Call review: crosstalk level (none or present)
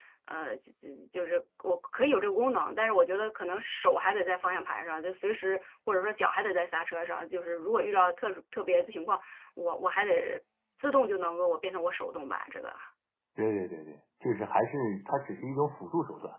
none